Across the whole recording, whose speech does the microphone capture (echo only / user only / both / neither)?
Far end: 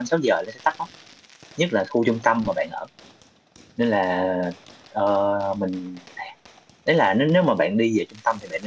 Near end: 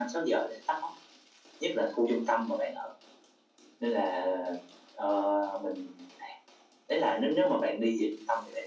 echo only